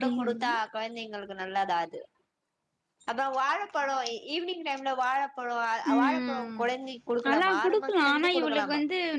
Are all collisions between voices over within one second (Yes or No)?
No